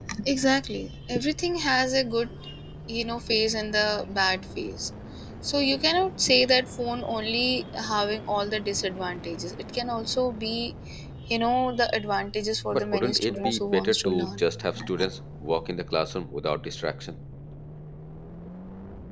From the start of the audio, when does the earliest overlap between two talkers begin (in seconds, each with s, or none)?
12.7 s